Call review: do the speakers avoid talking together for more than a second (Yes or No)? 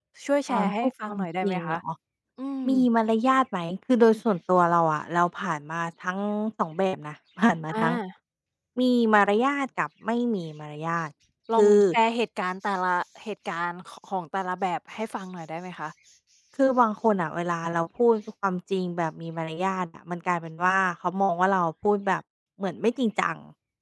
No